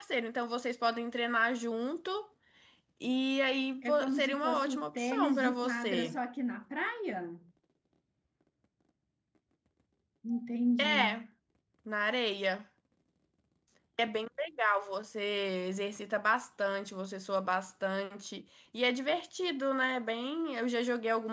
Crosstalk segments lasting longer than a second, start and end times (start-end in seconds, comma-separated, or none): 3.8-6.2